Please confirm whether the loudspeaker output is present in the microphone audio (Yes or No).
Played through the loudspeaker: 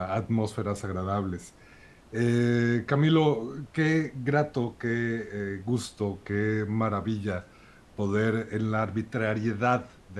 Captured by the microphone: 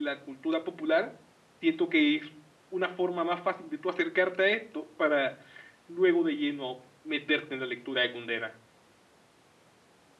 No